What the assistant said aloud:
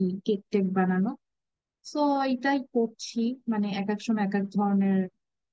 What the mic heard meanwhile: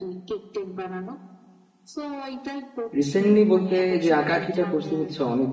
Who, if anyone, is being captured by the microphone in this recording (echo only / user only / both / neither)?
both